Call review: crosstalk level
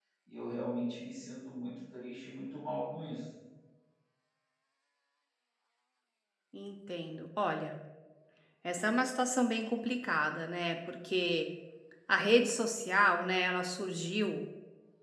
none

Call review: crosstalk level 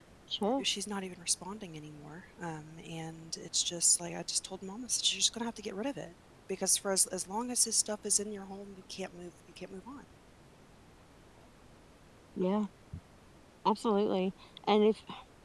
none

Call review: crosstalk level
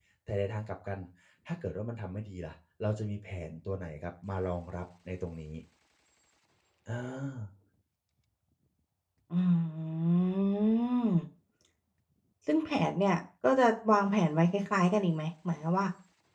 none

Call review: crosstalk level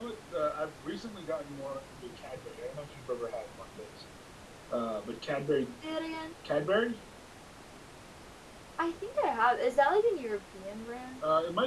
none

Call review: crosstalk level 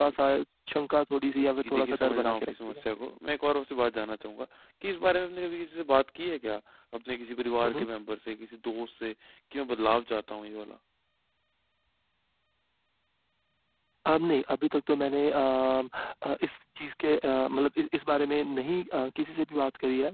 present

